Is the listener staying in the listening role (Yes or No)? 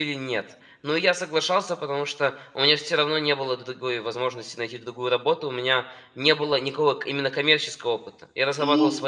Yes